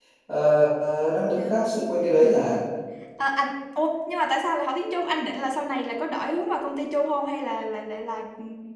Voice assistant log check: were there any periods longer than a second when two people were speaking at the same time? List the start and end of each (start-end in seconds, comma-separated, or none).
none